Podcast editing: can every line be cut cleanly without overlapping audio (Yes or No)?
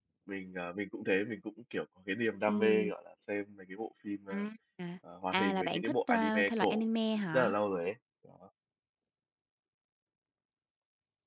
No